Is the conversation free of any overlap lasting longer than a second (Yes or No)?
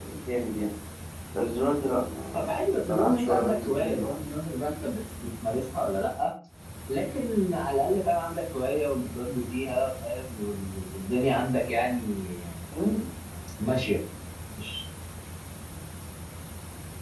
No